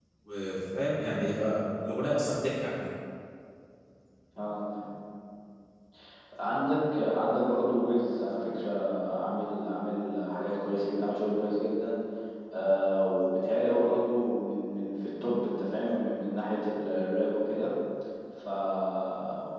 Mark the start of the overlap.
none

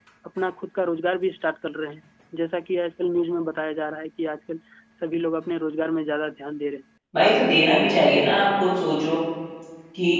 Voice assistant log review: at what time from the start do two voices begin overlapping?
none

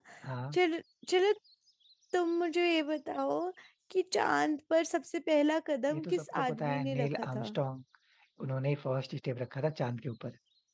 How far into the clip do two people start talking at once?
5.9 s

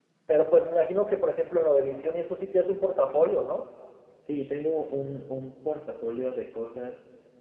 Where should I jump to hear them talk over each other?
none

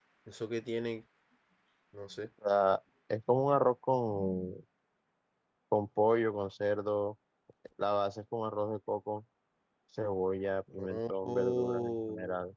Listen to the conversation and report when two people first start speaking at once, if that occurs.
10.8 s

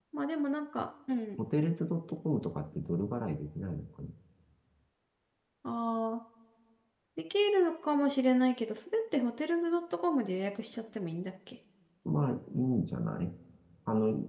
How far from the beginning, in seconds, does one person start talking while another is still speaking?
none

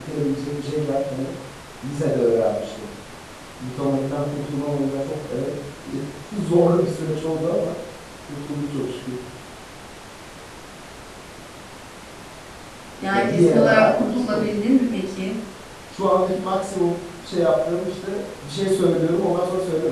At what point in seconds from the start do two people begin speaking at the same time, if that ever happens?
13.1 s

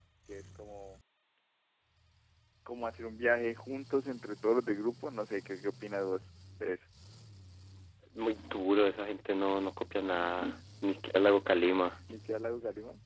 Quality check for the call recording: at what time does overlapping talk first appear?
none

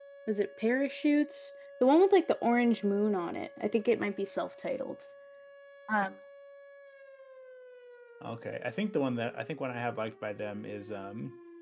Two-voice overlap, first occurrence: none

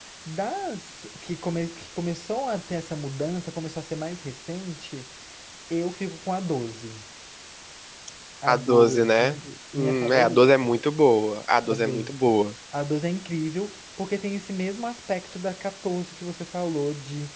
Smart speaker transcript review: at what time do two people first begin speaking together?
8.5 s

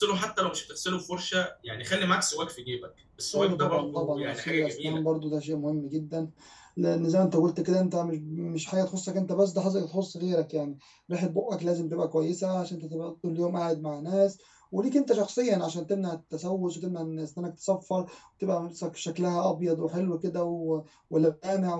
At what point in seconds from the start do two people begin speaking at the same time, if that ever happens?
3.3 s

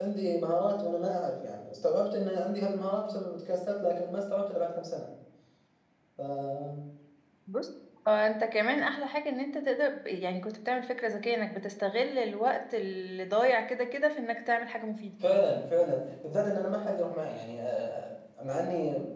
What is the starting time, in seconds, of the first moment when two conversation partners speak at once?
none

